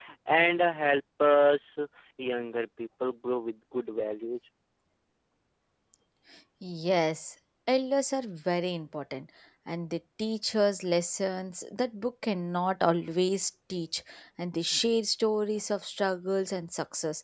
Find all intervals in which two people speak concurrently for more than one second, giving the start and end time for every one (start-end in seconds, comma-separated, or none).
none